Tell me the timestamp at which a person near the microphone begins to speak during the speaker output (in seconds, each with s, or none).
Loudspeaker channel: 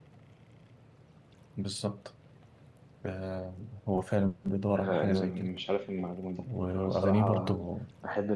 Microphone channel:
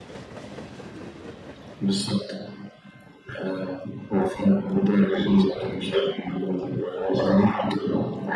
none